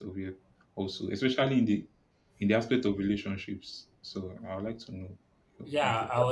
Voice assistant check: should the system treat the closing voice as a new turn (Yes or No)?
Yes